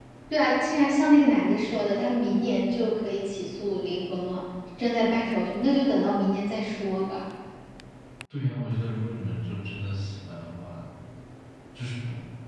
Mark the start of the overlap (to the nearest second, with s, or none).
none